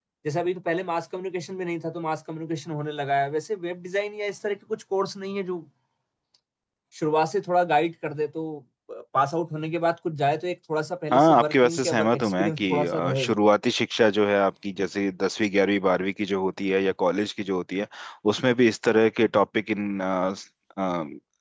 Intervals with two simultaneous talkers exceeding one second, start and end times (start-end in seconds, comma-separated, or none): 11.1-13.3